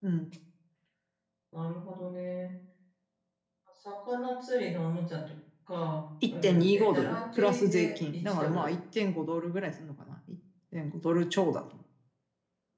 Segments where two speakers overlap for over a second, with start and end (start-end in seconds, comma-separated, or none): 6.3-8.7